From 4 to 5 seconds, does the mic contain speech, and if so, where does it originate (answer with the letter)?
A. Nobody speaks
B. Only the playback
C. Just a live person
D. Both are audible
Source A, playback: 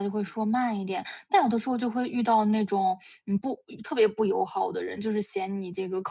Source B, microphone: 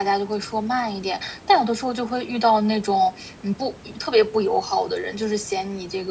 B